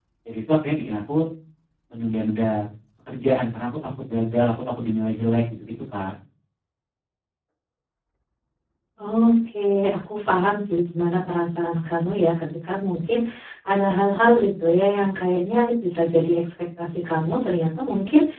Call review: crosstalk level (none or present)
none